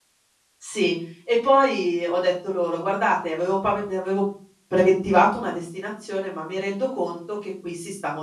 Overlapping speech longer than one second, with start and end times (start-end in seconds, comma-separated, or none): none